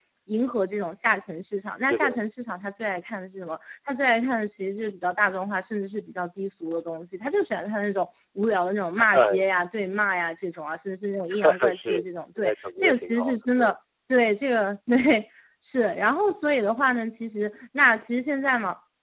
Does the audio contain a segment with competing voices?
Yes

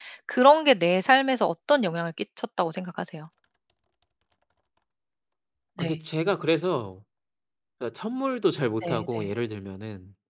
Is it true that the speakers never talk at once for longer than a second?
Yes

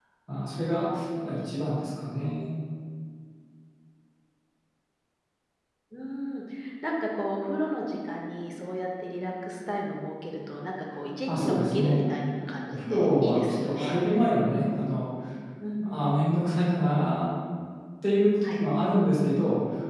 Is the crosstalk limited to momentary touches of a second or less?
No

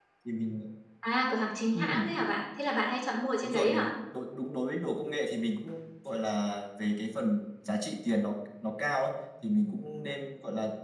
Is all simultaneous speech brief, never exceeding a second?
Yes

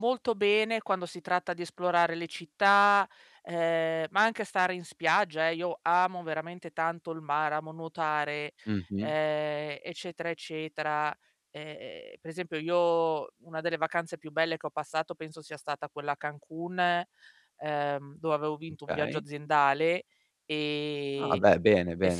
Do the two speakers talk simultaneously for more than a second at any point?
No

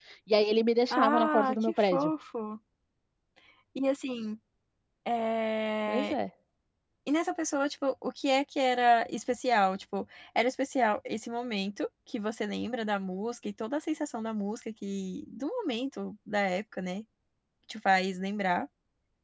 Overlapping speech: Yes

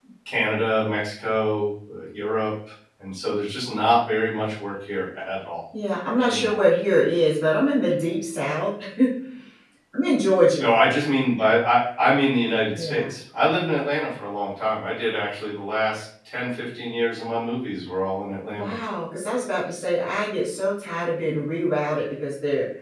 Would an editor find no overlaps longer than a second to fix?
Yes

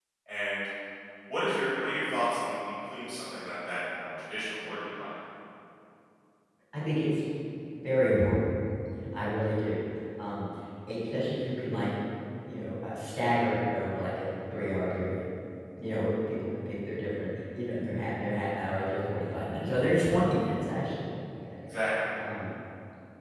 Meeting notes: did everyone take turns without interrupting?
Yes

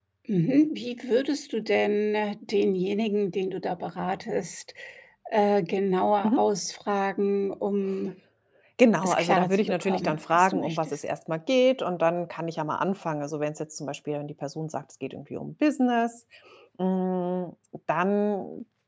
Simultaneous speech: Yes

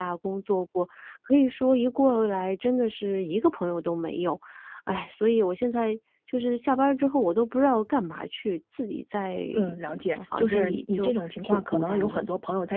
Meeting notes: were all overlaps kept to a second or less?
No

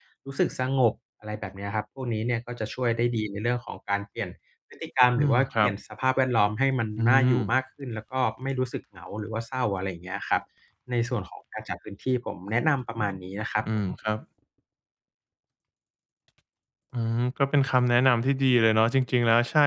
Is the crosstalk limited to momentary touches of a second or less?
Yes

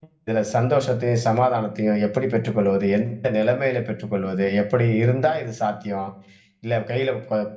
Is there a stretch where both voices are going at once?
No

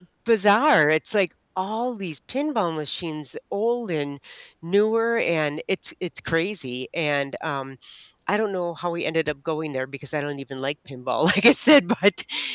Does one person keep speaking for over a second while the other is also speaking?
No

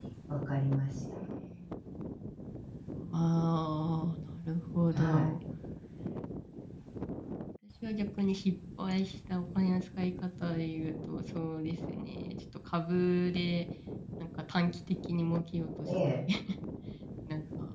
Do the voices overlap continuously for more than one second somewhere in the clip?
No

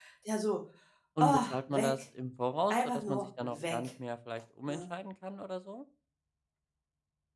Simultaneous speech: Yes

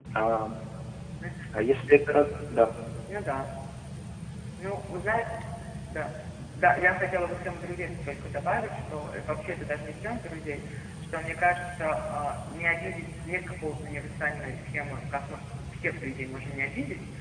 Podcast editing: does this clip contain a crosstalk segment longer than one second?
No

